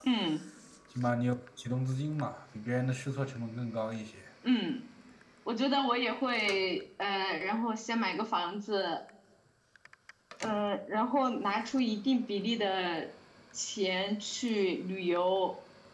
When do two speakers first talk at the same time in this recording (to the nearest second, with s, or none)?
none